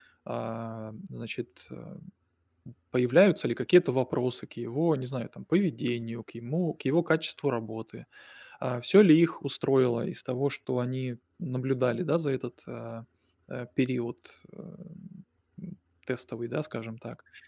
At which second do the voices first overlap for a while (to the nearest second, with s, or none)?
none